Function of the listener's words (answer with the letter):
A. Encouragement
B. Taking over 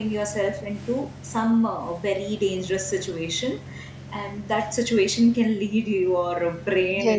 B